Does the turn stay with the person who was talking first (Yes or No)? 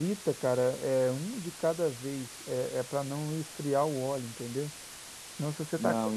Yes